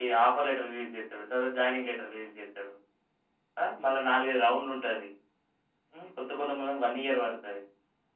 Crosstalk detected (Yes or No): No